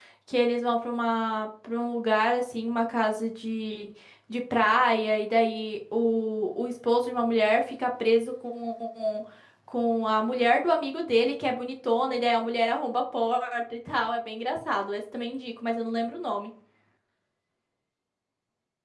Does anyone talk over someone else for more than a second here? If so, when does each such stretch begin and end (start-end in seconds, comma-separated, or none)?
none